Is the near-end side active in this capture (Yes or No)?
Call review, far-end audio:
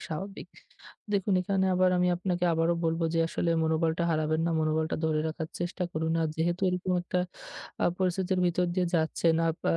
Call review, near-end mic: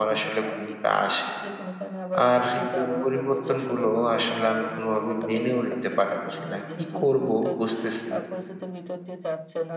Yes